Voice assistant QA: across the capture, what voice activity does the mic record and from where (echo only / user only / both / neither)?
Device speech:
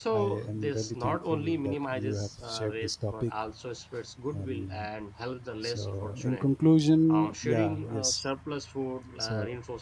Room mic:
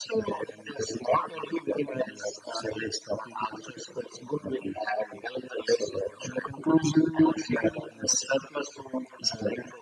echo only